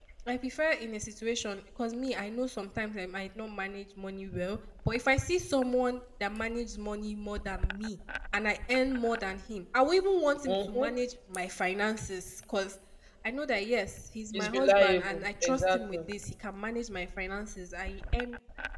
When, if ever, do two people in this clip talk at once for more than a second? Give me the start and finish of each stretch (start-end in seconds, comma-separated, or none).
14.3-16.0